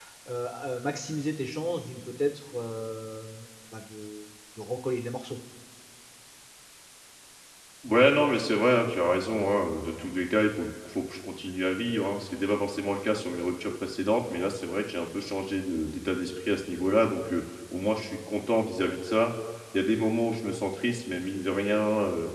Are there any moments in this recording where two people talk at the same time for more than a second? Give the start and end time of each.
none

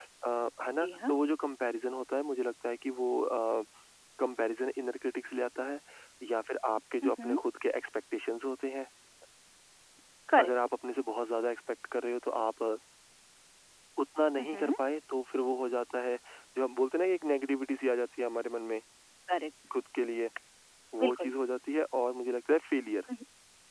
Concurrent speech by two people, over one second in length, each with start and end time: none

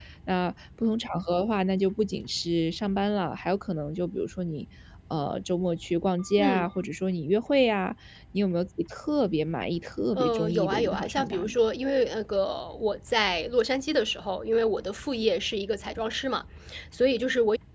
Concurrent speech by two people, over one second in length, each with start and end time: 10.2-11.5

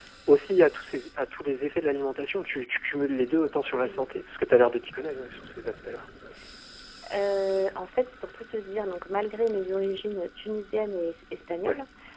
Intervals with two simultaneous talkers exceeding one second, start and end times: none

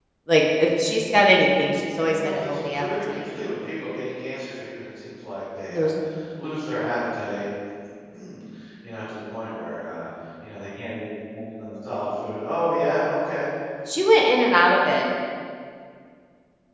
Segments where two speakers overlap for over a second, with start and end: 2.0-3.2

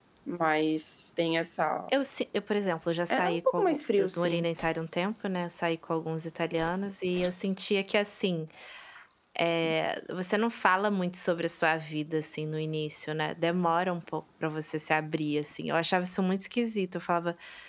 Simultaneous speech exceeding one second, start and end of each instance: 3.1-4.5

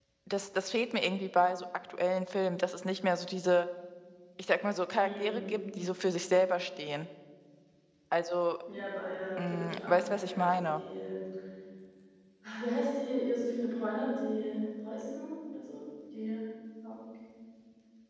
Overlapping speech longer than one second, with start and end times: 9.4-10.8

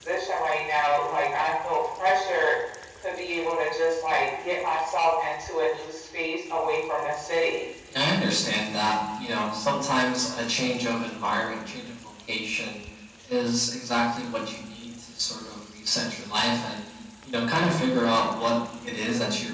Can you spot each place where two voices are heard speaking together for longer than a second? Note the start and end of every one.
none

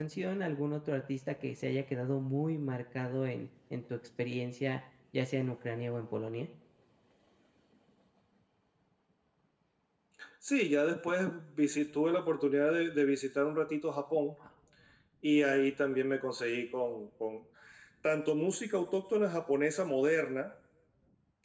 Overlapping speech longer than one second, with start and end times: none

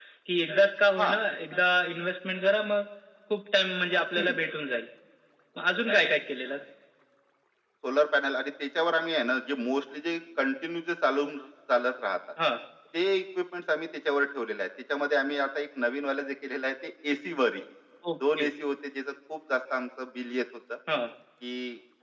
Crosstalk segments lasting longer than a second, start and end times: none

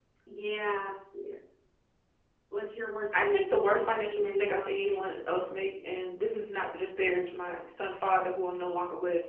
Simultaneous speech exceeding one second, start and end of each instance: 3.2-5.0

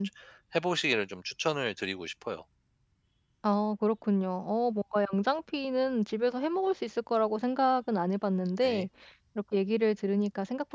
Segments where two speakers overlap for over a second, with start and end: none

